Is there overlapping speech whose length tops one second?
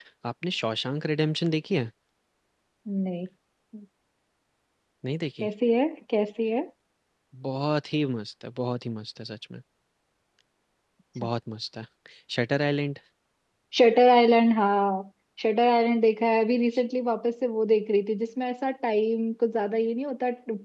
No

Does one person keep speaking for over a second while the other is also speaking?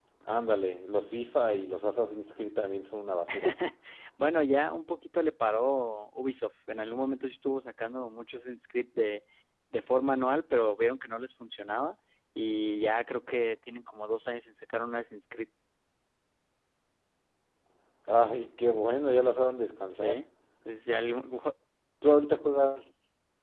No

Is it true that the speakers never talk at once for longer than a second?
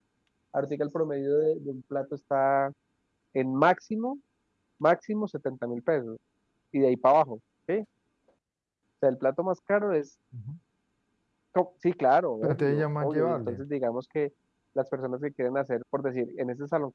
No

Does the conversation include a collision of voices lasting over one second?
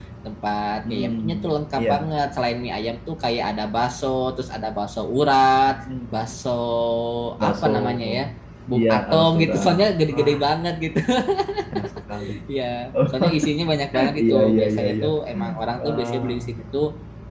Yes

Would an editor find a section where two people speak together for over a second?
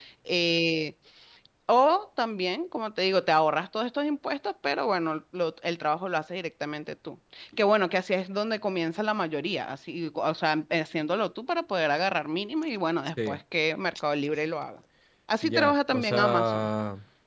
Yes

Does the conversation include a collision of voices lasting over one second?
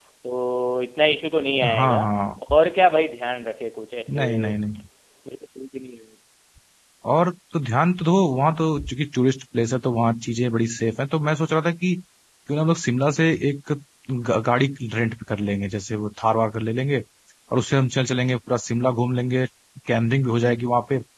No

